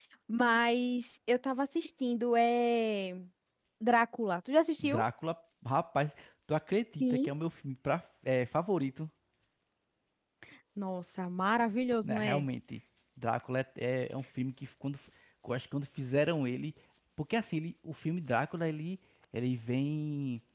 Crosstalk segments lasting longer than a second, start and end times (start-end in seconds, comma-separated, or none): none